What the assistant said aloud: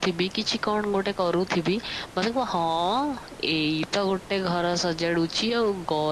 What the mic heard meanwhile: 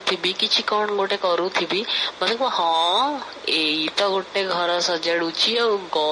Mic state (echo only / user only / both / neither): echo only